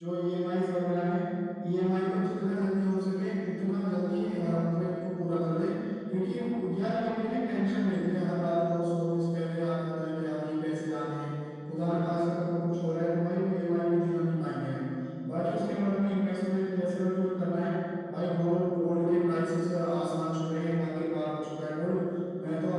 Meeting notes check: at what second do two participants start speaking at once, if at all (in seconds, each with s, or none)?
none